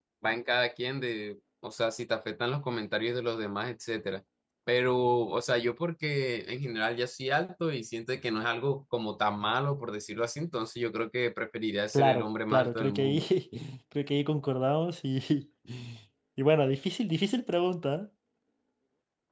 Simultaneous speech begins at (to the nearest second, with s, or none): 12 s